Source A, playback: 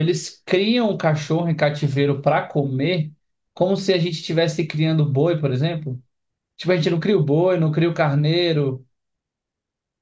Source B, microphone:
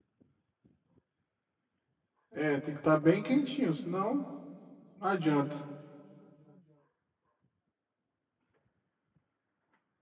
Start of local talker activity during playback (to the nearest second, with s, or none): 2 s